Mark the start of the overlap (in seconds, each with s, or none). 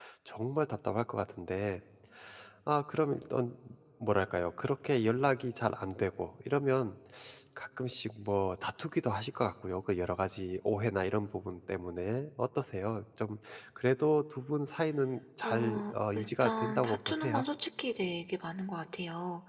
15.4 s